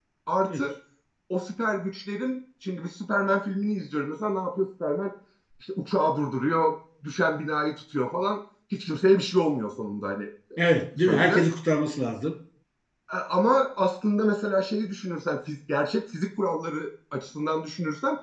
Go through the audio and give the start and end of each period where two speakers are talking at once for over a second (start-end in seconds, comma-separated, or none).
none